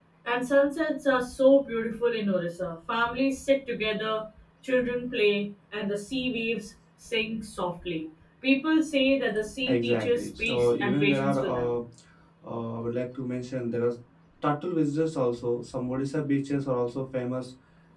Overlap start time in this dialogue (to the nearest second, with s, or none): 10 s